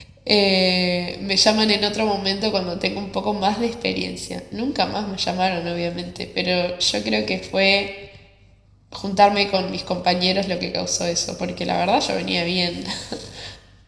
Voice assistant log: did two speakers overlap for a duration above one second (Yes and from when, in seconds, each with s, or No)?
No